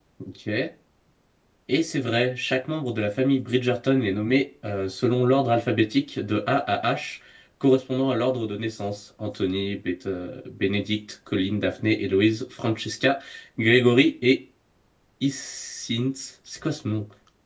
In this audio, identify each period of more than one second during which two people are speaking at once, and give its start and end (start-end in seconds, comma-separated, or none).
none